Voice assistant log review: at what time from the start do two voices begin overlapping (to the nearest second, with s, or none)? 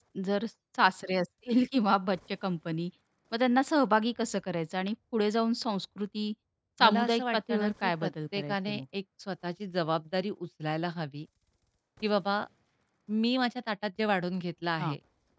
7 s